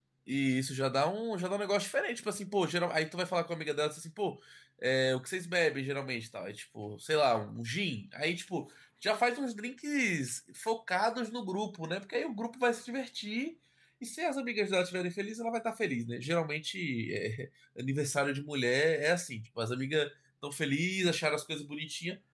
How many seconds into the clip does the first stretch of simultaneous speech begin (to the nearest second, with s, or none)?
none